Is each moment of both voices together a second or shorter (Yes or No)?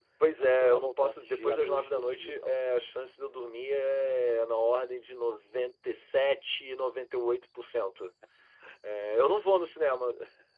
No